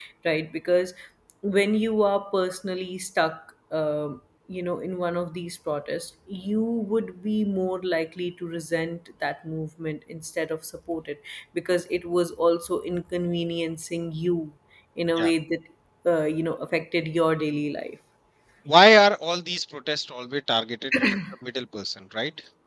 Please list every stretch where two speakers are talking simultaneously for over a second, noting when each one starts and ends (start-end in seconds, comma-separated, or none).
none